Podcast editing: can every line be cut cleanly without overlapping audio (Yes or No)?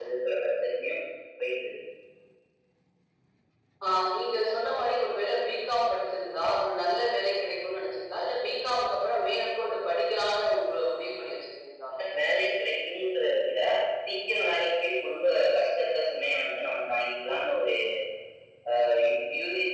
Yes